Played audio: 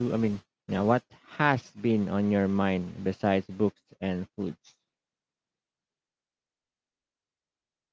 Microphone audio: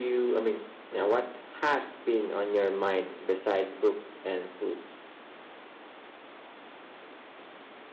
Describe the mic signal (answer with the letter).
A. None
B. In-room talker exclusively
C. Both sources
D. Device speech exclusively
D